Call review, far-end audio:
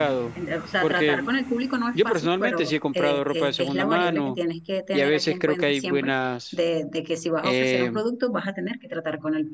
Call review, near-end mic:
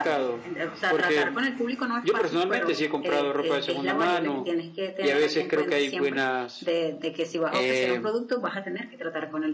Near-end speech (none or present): none